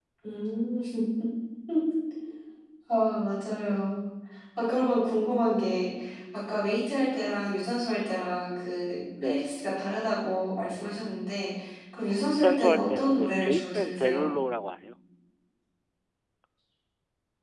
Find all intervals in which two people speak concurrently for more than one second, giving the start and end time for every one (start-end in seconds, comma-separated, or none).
12.0-14.3